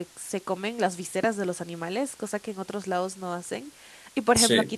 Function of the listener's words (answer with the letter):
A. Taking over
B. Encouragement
B